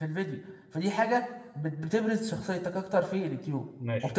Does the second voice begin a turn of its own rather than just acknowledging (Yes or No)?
Yes